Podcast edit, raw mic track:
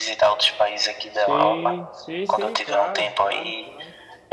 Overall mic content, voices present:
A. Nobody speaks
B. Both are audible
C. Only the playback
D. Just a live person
B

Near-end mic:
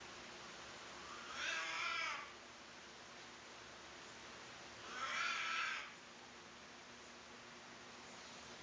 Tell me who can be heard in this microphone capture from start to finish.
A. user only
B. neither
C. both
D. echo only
B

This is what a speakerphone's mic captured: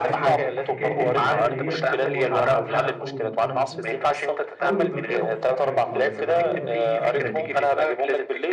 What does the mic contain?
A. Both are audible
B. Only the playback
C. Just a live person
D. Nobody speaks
A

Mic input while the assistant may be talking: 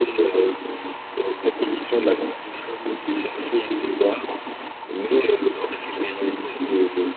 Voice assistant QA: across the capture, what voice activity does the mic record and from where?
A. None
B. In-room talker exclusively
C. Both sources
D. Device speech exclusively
D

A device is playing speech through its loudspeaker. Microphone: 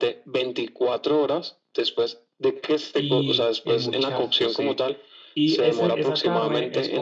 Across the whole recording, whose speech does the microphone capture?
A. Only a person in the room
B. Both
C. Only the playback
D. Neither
B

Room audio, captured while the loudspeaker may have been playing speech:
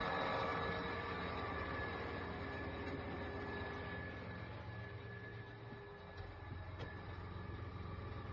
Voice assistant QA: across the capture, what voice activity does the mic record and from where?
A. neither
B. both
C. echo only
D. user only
A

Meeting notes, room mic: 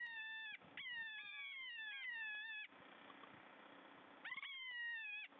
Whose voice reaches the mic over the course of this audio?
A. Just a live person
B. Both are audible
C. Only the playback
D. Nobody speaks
D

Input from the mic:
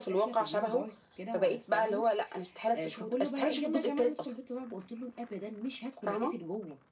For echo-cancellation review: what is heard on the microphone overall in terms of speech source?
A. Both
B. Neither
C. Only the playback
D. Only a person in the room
C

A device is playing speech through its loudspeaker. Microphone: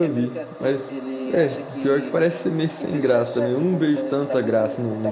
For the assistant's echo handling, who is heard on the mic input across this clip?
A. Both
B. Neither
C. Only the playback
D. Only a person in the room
A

